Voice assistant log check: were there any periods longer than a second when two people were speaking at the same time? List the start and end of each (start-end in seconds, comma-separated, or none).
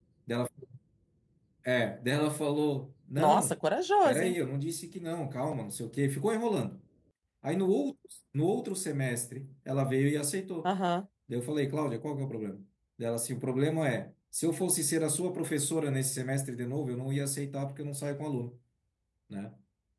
none